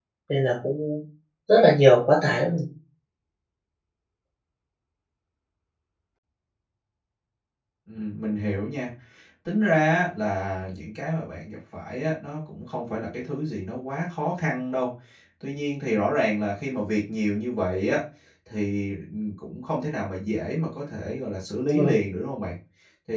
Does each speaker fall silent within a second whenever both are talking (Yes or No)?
Yes